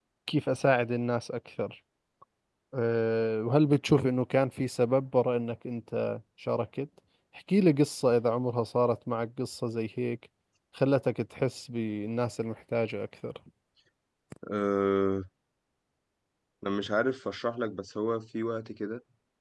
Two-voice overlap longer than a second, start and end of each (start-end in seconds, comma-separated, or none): none